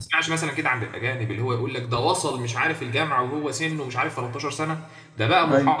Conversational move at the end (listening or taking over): listening